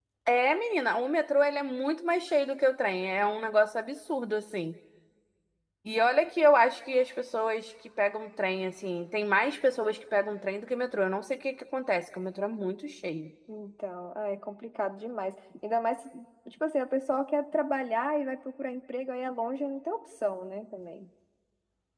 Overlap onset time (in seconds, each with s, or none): none